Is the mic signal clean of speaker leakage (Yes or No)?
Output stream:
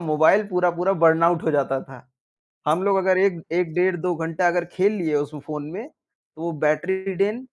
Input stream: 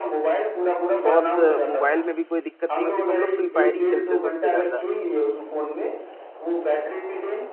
No